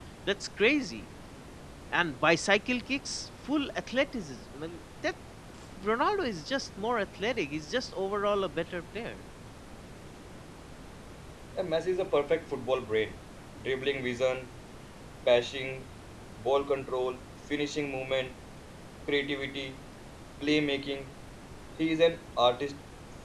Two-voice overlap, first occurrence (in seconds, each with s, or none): none